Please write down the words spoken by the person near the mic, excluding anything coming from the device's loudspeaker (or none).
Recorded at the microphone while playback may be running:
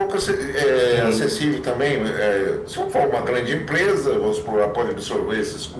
hum,